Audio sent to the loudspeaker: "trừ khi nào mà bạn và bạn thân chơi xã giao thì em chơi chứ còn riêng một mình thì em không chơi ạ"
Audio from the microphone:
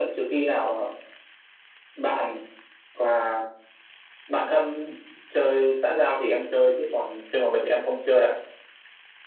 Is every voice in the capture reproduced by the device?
Yes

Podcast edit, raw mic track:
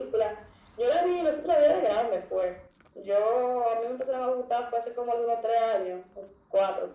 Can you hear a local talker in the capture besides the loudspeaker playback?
No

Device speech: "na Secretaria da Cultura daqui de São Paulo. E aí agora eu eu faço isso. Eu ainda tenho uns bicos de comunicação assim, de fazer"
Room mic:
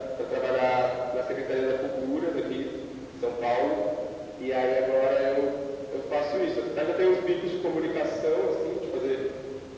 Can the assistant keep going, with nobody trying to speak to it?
Yes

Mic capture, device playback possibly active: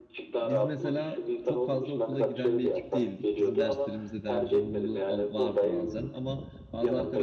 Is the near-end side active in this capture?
Yes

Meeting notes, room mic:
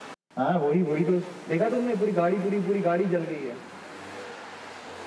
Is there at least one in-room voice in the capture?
No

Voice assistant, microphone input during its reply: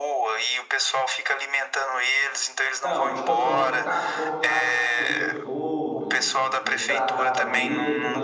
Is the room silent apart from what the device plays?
No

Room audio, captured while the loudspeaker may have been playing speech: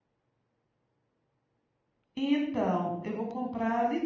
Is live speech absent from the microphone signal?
No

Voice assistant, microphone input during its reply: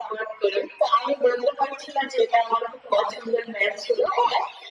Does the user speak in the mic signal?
No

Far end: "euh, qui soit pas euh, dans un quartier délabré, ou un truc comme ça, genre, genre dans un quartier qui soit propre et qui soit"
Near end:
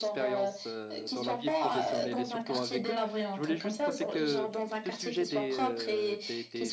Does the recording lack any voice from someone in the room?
No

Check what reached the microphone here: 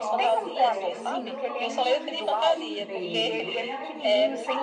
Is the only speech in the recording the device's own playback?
No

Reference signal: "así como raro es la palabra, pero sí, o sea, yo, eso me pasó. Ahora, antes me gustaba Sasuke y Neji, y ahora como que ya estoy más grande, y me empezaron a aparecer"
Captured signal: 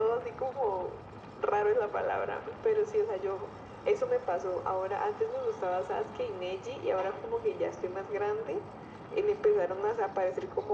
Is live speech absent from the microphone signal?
Yes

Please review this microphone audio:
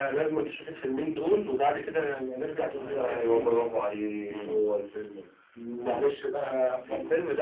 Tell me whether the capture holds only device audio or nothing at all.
No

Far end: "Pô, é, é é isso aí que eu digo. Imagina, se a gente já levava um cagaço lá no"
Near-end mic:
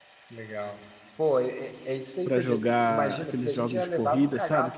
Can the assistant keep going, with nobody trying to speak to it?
No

